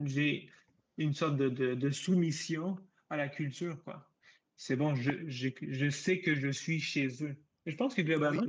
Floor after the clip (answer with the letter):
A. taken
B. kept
B